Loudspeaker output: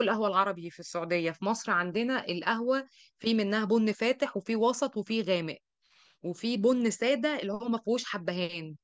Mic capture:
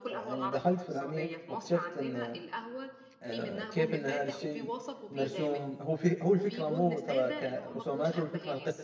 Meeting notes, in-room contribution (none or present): present